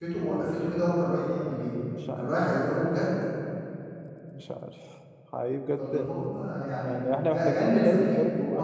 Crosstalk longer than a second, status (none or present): present